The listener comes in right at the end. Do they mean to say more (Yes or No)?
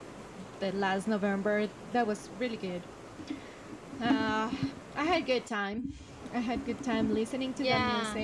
No